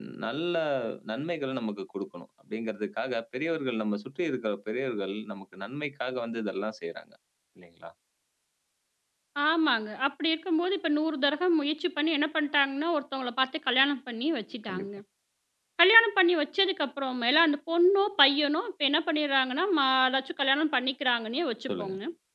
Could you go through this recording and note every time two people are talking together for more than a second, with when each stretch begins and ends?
none

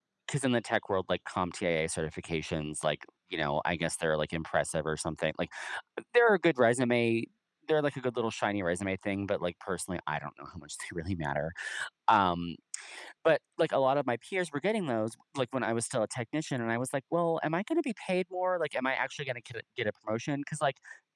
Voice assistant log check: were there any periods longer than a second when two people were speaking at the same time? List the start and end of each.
none

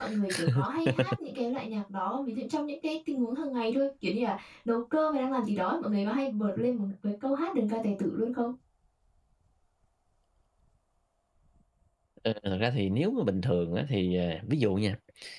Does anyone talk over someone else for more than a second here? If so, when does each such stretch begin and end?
none

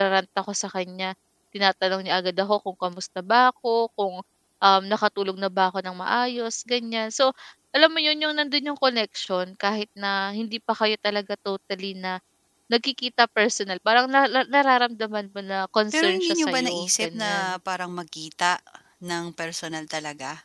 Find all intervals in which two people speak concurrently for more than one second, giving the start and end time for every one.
15.9-17.3

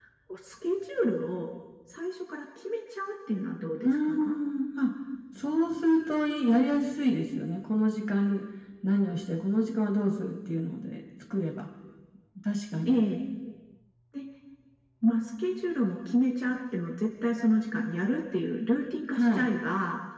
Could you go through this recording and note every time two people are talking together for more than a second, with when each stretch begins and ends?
none

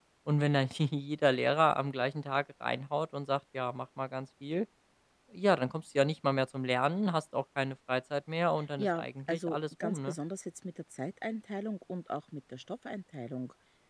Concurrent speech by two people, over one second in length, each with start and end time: 8.8-10.2

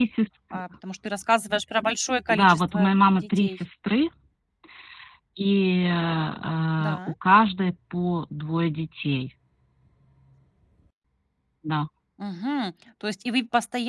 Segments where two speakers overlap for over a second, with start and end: 2.3-3.6

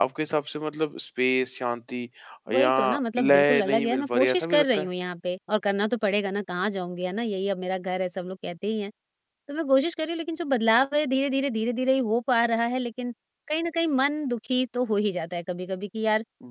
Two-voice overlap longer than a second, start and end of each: 3.2-4.9

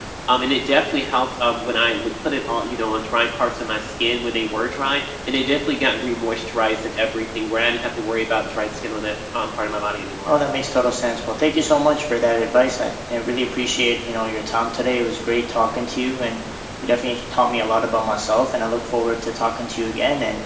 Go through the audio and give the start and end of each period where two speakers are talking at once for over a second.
none

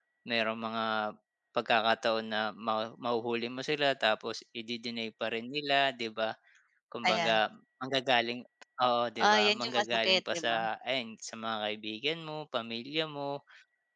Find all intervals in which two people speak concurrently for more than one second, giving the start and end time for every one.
9.2-10.6

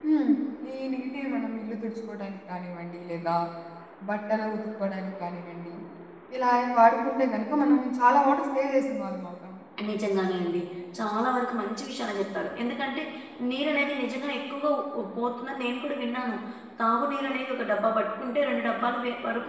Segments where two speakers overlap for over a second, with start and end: none

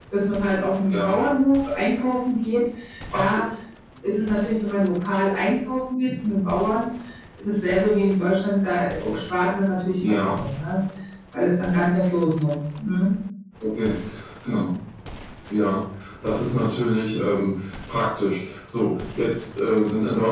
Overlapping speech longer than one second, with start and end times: none

